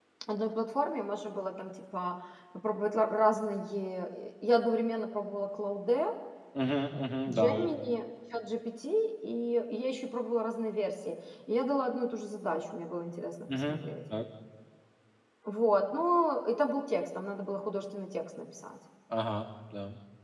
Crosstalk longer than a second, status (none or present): none